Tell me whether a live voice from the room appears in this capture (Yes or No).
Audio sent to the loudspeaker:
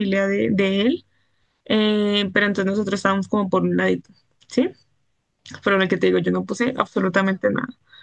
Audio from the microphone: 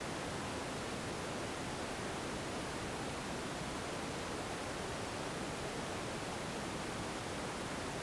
No